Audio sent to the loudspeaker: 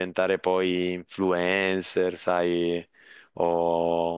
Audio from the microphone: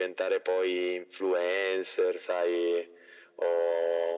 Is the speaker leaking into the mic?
Yes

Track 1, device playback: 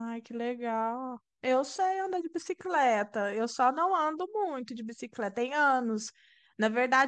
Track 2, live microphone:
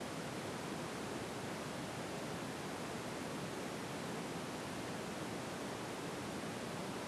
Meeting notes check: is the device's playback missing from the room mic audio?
Yes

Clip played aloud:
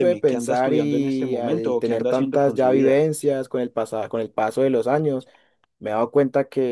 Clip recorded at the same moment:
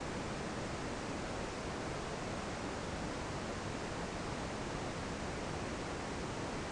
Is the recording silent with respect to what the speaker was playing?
Yes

